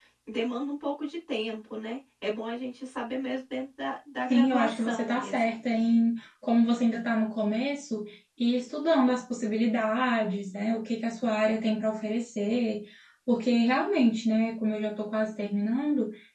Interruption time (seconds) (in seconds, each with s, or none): 4.3 s